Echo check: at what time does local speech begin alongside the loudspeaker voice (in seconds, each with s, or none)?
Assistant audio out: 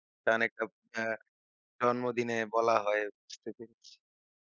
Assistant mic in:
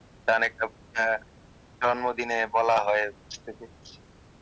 none